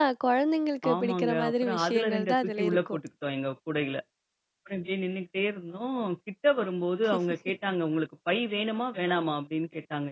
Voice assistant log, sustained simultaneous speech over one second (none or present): present